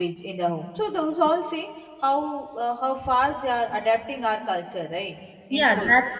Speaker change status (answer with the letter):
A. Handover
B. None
A